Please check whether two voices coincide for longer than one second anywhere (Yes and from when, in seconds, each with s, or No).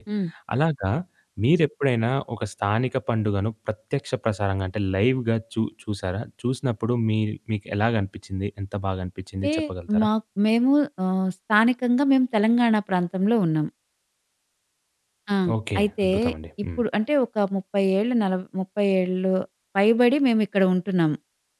No